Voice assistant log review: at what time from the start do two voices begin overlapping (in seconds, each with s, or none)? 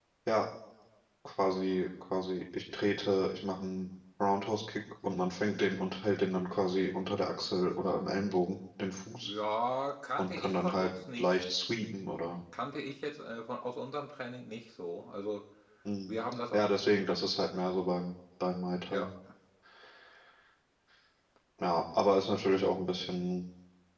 10.2 s